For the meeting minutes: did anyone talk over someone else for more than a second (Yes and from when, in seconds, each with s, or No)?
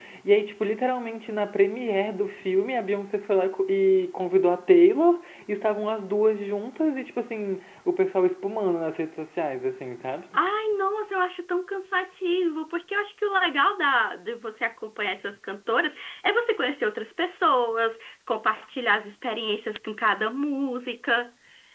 No